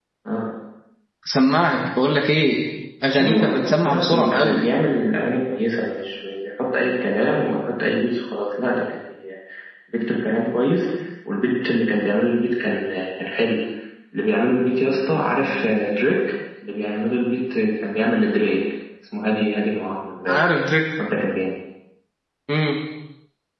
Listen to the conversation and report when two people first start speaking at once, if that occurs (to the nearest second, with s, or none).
3 s